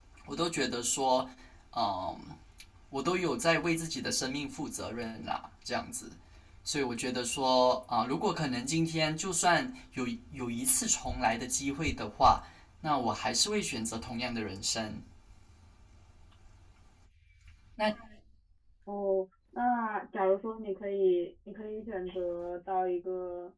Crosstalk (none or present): none